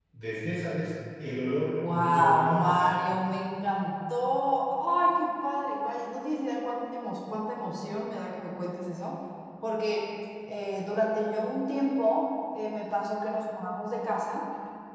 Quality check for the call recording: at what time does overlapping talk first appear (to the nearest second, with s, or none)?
2 s